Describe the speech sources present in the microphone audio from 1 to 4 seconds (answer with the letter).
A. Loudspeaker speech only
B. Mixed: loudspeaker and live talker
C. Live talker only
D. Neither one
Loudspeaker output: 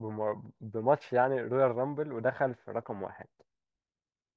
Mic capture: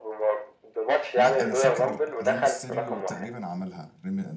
B